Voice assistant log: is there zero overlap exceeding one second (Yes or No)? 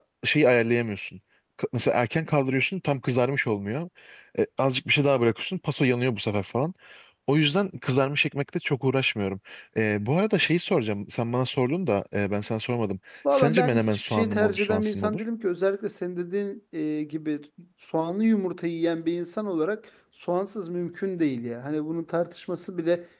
No